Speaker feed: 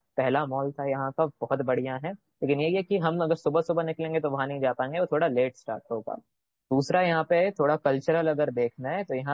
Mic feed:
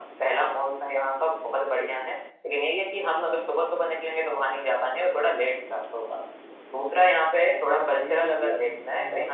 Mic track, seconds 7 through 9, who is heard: both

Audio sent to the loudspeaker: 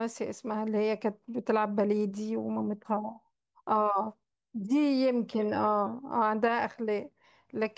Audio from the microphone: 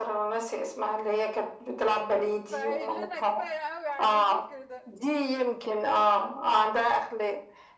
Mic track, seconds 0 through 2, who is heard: echo only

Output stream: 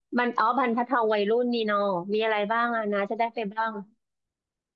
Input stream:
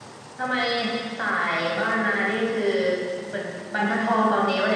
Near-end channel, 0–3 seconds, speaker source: user only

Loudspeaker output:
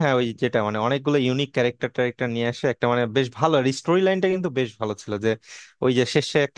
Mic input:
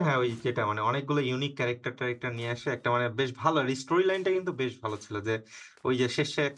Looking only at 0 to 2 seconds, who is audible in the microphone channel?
echo only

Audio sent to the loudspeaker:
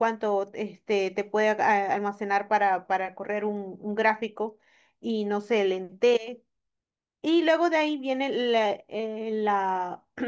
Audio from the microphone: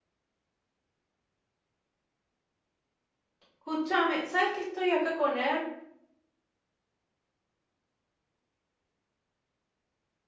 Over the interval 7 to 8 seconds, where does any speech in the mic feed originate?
neither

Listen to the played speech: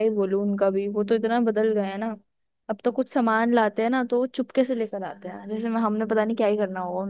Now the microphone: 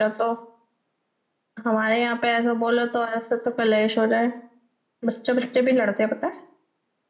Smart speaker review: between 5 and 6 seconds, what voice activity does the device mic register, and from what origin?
user only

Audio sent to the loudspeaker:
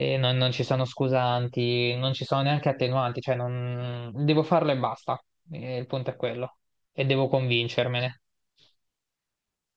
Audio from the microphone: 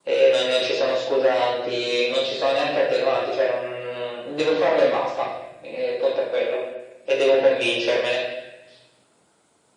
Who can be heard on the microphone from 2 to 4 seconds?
echo only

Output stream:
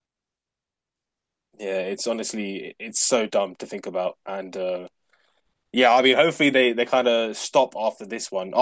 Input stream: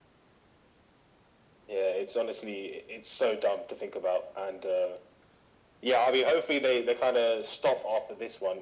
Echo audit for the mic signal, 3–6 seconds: echo only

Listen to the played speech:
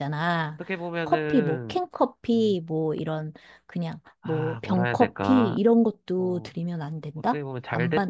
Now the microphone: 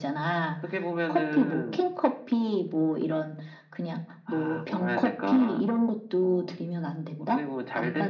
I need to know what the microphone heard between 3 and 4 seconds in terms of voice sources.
echo only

